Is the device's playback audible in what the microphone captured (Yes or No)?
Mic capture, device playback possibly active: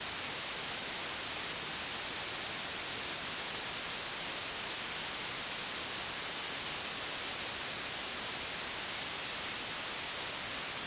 No